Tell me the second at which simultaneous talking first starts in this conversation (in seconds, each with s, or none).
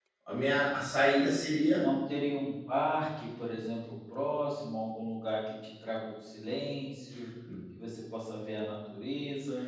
none